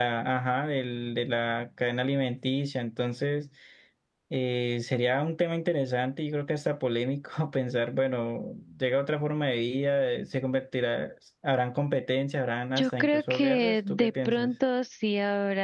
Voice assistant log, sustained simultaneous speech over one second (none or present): present